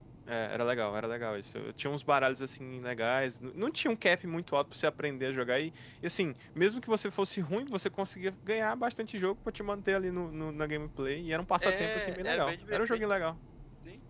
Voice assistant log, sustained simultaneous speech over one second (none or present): present